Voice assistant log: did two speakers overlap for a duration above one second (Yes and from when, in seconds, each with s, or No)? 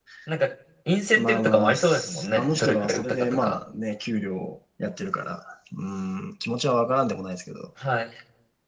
Yes, from 1.1 s